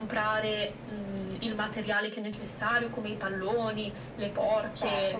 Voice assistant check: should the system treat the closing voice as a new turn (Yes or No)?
No